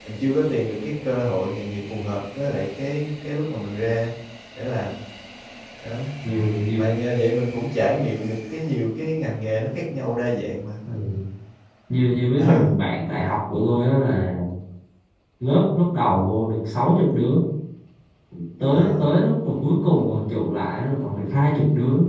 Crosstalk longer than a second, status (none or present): none